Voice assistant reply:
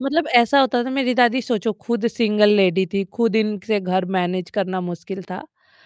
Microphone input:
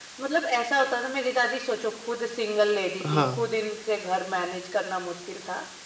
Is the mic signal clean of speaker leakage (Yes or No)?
No